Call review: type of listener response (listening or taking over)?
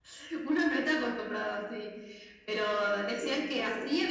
listening